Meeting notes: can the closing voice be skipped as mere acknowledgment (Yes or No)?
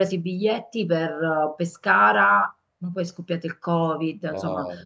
Yes